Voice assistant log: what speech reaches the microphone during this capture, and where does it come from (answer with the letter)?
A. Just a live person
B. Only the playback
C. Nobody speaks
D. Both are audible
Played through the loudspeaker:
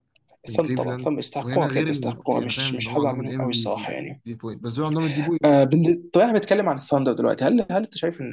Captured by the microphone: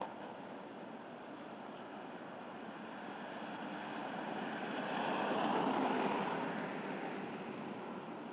C